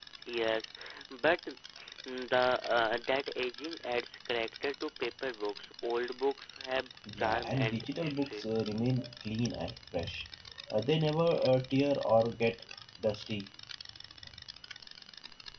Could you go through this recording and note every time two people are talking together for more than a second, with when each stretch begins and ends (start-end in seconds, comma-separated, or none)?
7.2-8.4